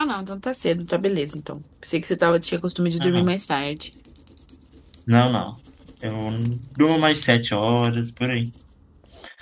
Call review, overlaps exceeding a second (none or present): none